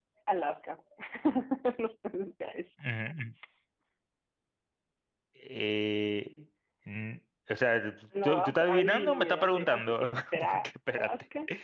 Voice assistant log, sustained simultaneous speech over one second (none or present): present